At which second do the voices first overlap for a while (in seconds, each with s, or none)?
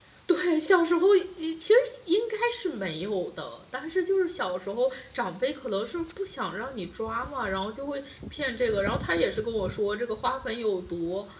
none